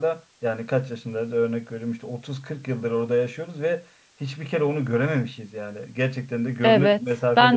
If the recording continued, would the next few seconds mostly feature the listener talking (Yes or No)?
Yes